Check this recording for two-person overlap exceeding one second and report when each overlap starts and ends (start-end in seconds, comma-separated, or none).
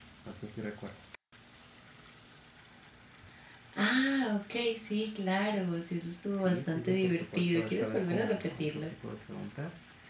6.3-8.9